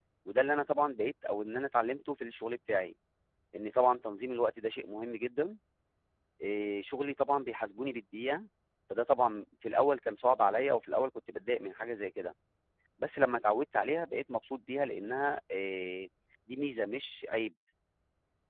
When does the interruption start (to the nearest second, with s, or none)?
none